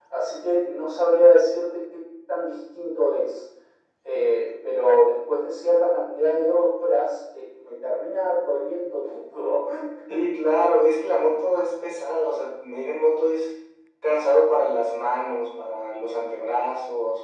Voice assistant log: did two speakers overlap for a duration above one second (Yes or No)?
No